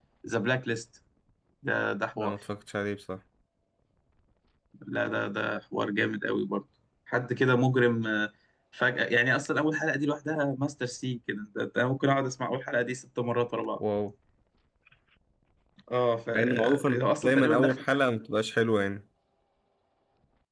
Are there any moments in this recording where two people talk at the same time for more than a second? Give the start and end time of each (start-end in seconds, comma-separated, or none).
16.3-17.8